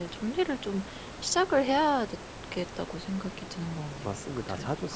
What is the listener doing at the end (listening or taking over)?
taking over